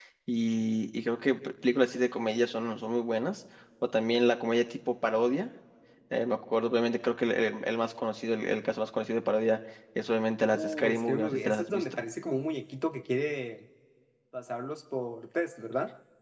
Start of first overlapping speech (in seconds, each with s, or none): 10.5 s